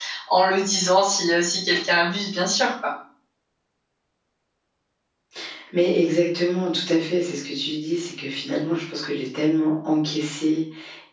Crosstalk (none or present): none